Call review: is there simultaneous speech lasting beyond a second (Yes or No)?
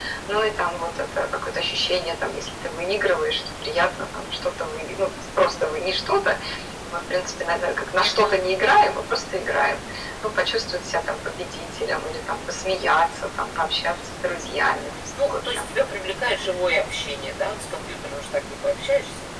No